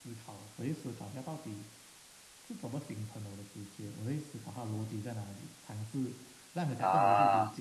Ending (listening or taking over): listening